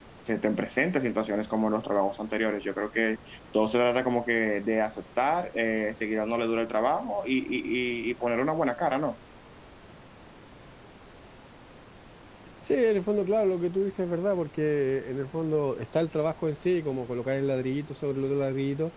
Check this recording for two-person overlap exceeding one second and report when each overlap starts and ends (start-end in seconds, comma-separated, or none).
none